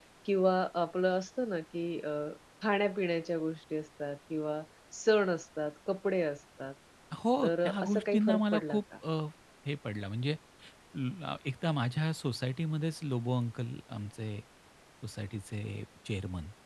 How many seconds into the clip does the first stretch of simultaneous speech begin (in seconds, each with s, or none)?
7.4 s